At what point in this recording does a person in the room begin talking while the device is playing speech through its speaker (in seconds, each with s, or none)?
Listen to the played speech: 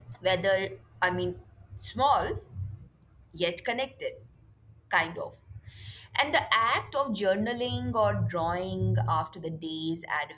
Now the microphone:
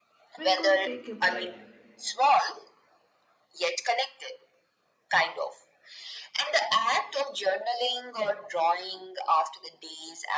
0.4 s